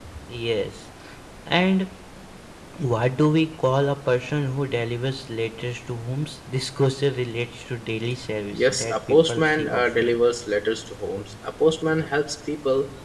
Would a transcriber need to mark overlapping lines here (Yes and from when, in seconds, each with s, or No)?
Yes, from 8.5 s